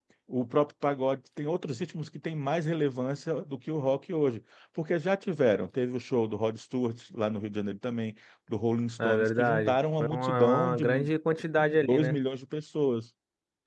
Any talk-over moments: Yes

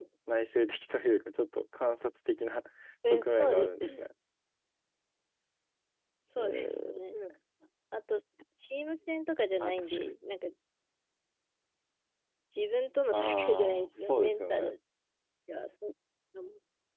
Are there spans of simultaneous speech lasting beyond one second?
Yes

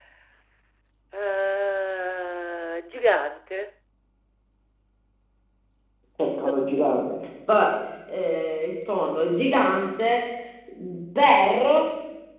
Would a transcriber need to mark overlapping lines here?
No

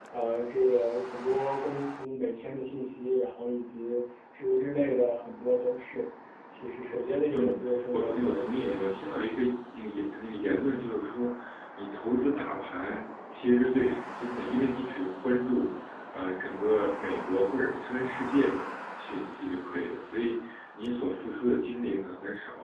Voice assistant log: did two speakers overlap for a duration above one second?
Yes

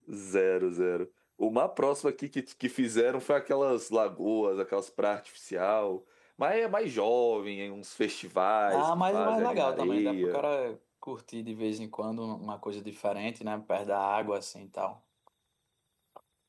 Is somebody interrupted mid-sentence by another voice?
Yes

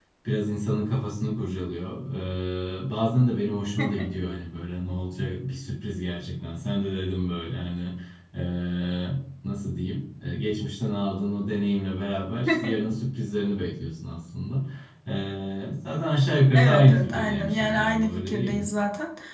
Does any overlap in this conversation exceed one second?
Yes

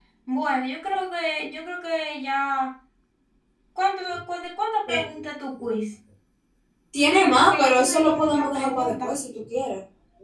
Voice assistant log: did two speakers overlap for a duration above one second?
Yes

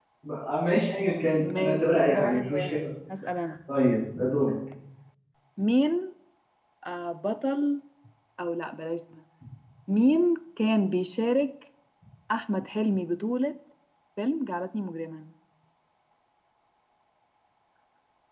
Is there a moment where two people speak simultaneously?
Yes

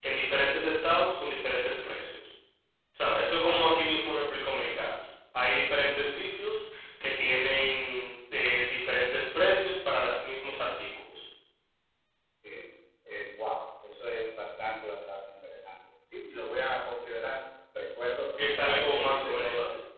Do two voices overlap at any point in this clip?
Yes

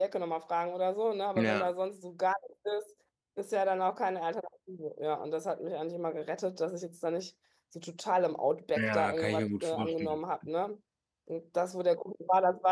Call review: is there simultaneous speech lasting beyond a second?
Yes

